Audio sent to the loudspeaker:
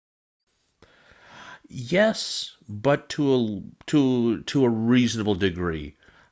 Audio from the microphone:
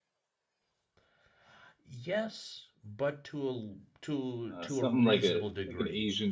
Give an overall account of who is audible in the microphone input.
both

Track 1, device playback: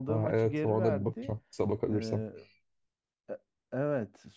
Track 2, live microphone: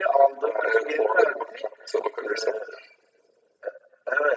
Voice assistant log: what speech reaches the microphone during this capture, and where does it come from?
echo only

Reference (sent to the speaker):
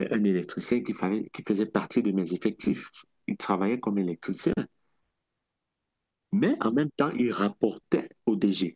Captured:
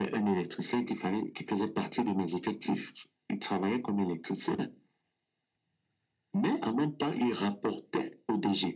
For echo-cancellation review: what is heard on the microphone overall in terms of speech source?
echo only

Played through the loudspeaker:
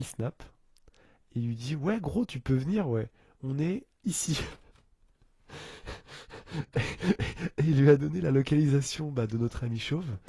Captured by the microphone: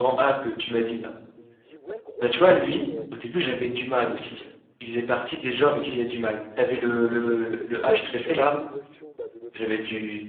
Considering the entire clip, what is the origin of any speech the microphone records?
both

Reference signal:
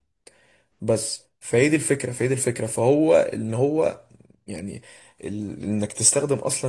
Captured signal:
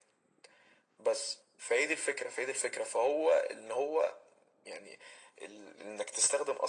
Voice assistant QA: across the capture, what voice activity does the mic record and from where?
echo only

